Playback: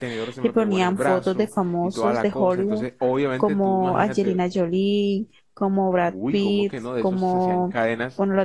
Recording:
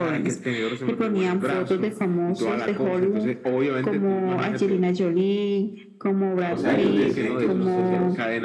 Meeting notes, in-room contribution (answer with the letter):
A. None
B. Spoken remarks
B